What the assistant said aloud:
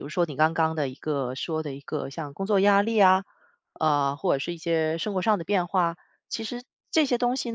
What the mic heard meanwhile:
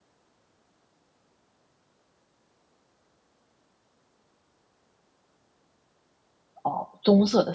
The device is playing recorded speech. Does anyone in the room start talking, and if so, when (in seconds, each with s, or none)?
6.6 s